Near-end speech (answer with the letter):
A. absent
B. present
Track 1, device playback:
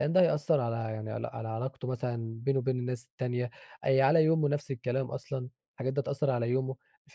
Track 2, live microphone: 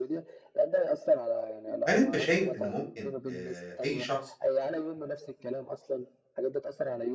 B